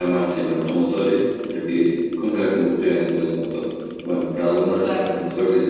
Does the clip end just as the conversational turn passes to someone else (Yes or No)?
No